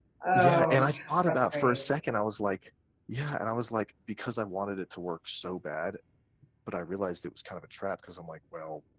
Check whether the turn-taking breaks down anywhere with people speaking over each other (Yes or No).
Yes